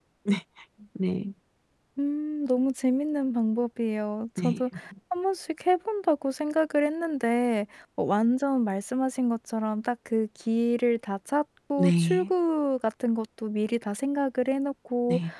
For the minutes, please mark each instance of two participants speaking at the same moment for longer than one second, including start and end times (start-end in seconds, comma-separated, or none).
none